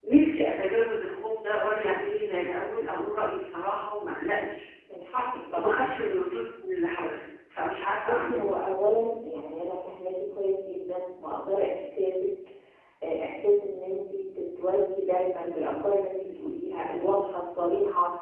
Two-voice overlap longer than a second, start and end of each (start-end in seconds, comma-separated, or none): none